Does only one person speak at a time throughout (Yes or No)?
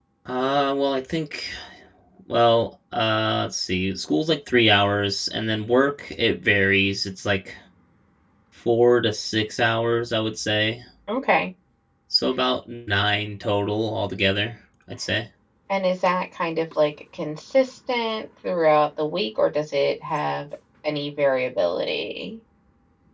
Yes